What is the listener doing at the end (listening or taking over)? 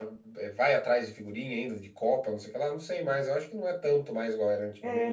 taking over